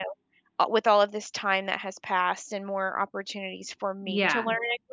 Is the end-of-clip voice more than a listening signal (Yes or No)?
No